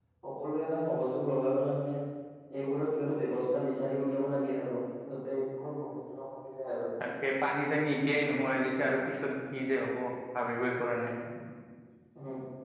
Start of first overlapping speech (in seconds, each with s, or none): none